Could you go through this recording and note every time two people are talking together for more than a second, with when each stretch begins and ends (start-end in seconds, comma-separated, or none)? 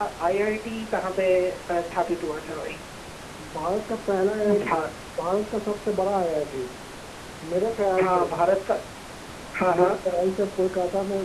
none